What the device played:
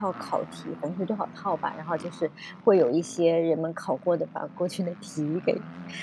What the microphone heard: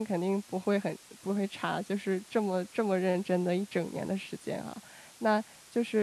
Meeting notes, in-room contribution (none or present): present